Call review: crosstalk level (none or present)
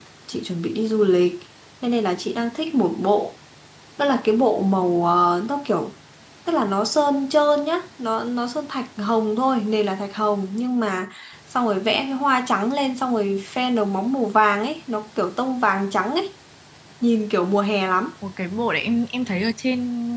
none